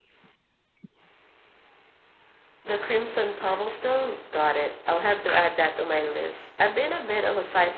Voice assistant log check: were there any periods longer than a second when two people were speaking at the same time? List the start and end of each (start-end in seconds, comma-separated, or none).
none